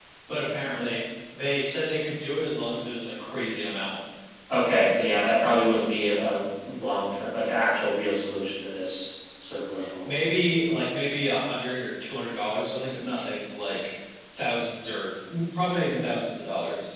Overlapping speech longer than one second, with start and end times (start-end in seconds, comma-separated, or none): none